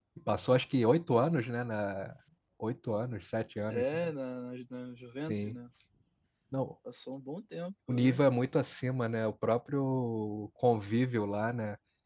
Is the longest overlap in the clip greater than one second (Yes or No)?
No